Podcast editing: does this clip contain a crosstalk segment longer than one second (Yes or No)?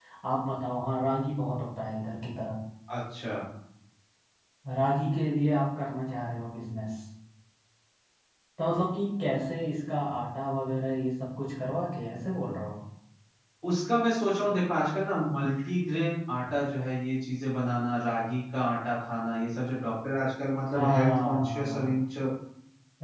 Yes